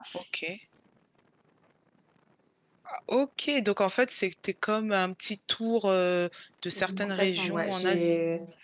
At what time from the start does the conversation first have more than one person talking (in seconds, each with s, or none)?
6.7 s